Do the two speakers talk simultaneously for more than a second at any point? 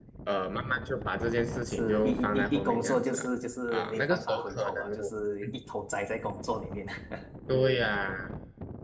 Yes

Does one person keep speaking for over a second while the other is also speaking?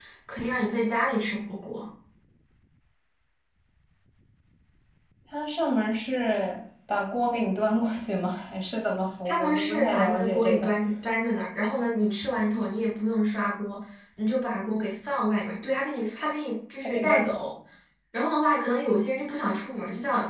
Yes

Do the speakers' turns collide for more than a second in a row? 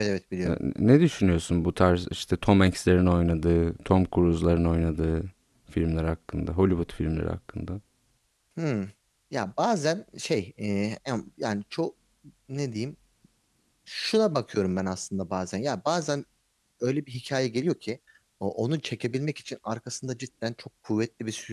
No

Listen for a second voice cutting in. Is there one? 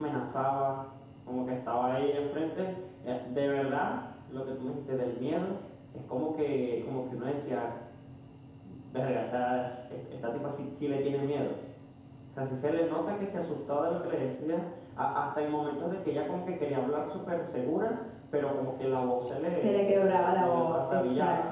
Yes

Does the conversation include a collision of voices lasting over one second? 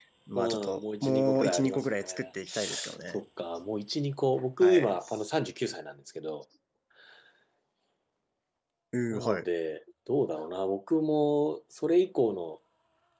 Yes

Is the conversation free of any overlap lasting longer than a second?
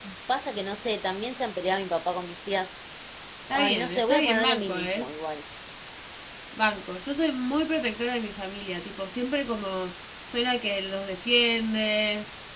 No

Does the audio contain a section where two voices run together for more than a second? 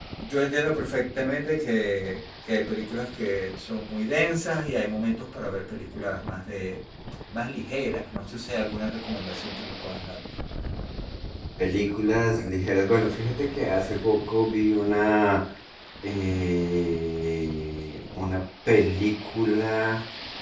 No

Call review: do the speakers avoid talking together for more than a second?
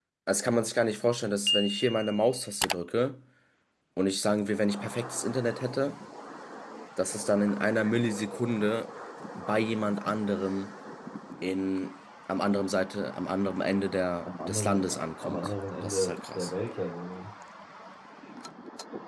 No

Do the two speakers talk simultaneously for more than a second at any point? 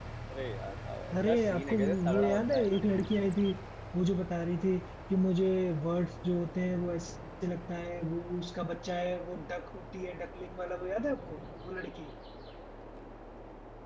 Yes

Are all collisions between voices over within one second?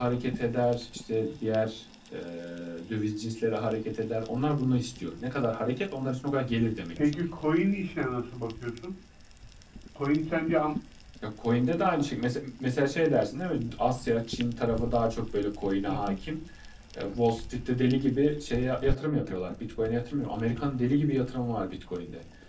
Yes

